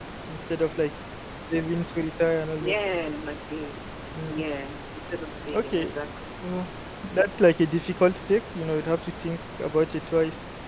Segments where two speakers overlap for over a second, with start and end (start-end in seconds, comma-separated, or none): none